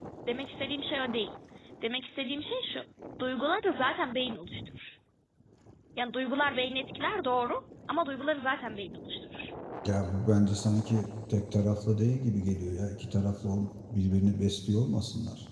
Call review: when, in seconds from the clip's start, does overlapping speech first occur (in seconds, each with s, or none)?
none